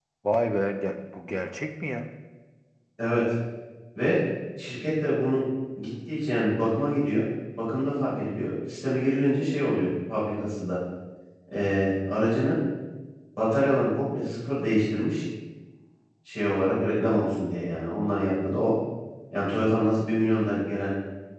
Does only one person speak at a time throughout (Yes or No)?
Yes